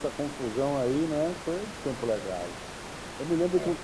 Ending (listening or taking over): listening